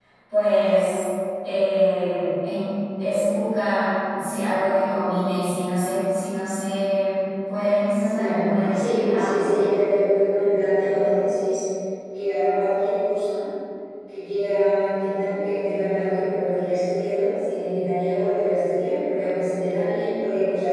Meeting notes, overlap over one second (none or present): present